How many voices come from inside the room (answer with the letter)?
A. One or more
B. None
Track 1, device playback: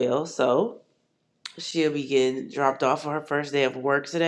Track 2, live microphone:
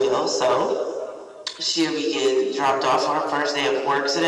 B